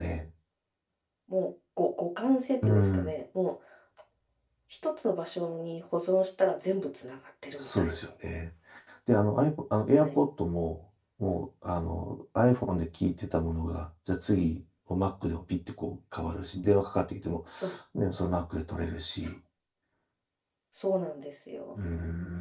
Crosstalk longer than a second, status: none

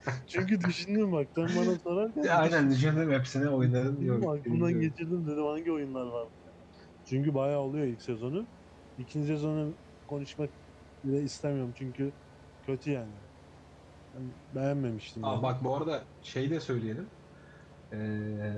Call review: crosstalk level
present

